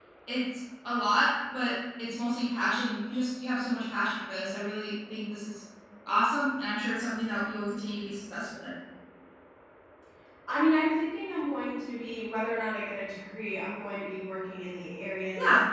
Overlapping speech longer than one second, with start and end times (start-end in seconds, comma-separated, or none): none